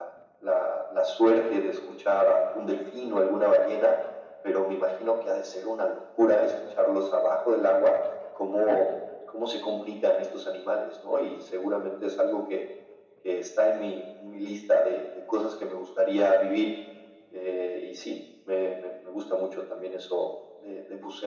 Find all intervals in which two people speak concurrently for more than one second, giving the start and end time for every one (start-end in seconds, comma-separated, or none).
none